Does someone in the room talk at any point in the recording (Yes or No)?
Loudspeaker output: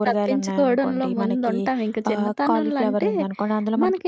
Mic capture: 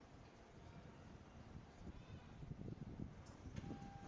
No